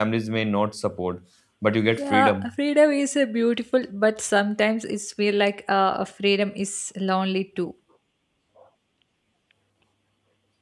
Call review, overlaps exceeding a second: none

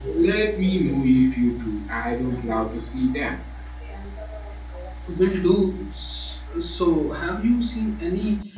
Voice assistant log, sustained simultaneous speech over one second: none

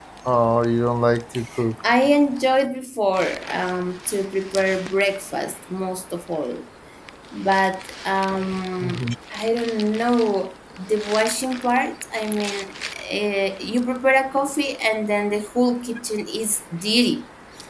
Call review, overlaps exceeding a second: none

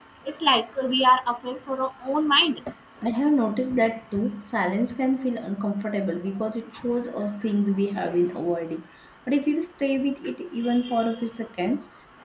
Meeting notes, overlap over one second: none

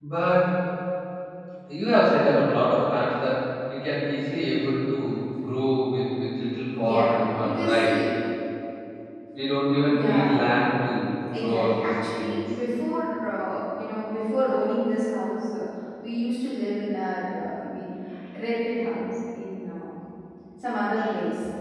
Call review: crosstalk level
present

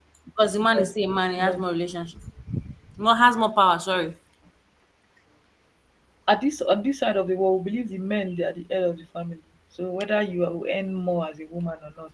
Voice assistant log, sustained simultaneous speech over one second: none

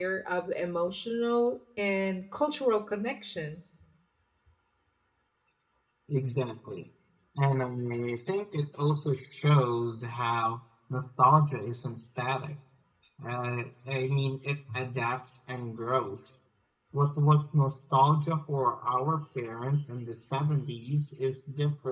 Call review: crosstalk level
none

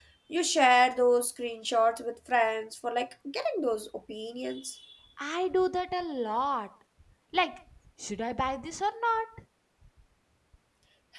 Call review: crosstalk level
none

